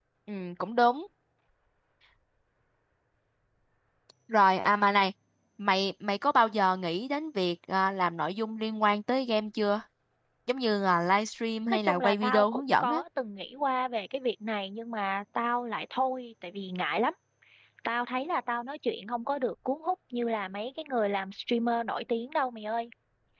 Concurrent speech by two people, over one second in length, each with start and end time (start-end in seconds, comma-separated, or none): 11.7-13.0